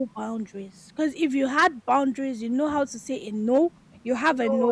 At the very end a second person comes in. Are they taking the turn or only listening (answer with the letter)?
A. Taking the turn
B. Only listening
B